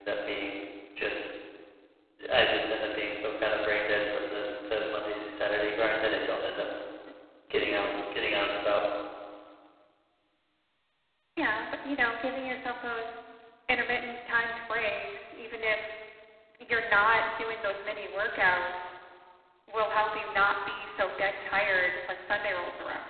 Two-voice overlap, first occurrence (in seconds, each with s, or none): none